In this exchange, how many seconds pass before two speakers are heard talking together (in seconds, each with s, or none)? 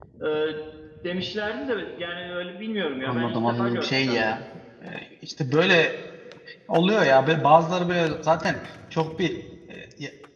3.0 s